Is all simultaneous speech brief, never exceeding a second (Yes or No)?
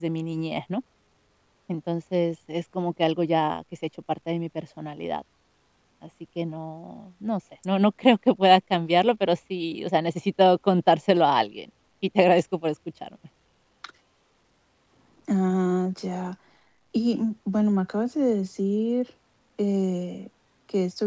Yes